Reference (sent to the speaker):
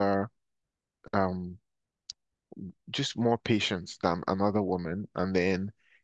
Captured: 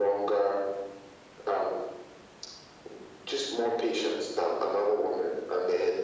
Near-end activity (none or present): none